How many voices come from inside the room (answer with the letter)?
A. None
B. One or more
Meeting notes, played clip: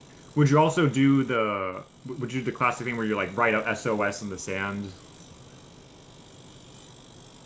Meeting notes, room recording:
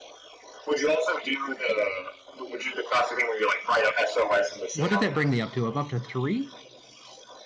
B